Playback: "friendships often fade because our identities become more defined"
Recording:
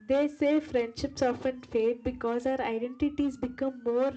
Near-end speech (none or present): none